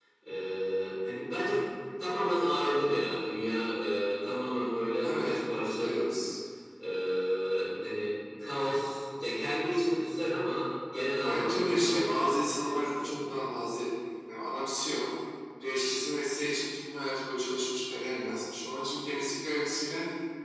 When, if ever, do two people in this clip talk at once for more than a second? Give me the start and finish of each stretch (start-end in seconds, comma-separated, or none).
11.2-13.4